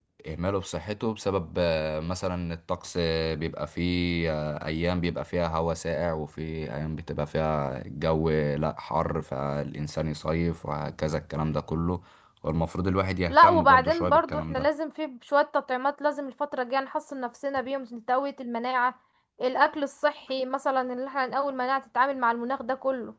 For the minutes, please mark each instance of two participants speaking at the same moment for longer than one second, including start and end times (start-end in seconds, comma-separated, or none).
13.3-14.7